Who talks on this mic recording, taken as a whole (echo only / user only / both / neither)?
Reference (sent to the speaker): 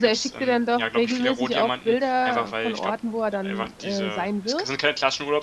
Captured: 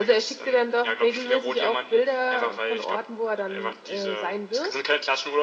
echo only